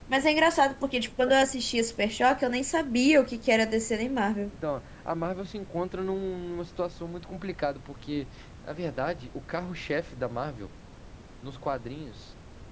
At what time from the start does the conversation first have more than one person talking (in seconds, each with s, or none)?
none